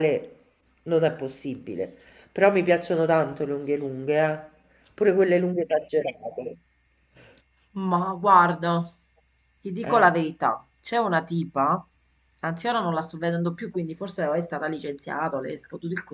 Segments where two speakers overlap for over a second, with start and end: none

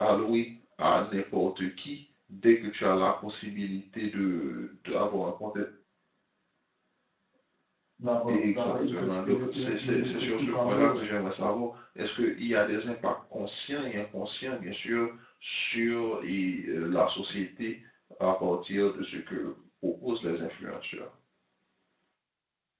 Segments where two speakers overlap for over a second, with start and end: 8.3-11.0

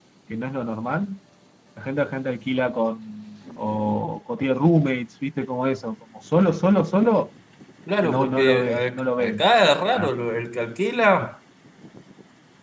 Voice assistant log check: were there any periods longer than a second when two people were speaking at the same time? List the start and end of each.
8.0-10.1

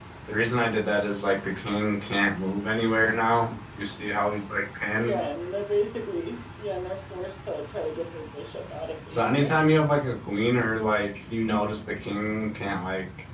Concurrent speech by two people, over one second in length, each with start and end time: none

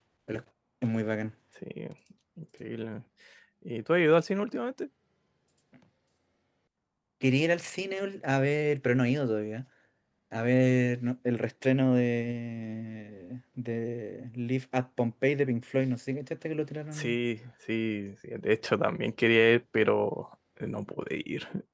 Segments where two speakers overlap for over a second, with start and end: none

